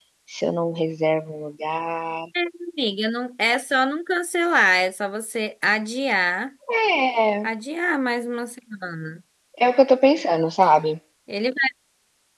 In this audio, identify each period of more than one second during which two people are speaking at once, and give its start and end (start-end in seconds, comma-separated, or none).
none